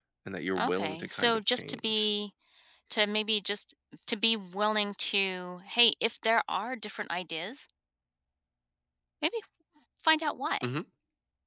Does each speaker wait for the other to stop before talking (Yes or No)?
No